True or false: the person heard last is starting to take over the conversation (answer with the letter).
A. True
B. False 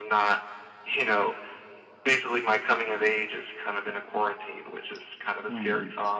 A